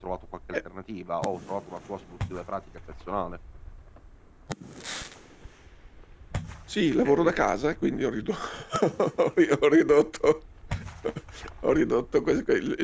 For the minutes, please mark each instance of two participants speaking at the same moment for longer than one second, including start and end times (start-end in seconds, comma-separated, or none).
none